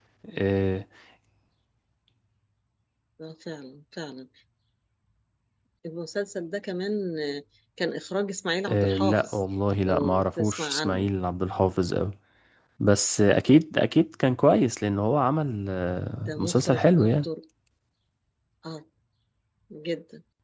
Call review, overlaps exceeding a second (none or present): present